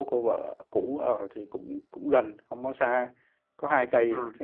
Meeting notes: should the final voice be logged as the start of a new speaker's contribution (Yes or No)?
No